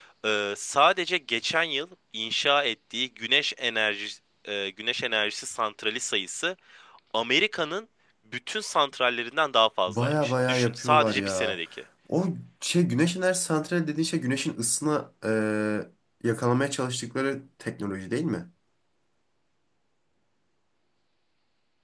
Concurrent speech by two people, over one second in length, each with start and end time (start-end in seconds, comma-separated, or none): 9.9-11.6